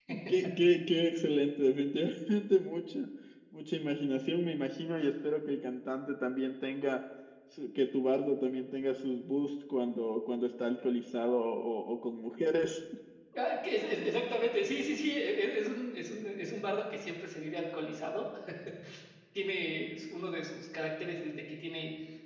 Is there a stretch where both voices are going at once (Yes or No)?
No